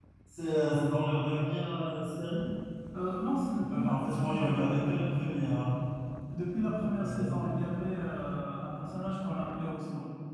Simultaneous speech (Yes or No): Yes